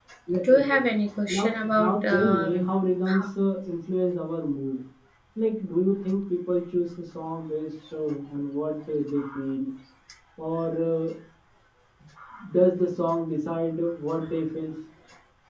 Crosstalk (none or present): present